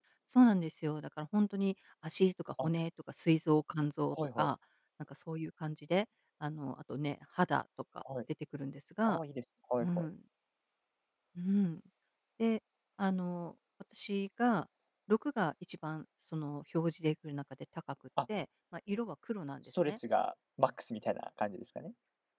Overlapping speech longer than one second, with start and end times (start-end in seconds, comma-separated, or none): none